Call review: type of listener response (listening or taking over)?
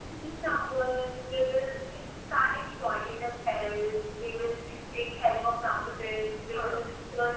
listening